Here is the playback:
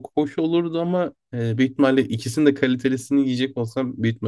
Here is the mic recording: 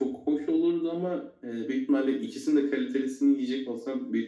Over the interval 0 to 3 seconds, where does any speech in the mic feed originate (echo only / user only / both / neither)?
echo only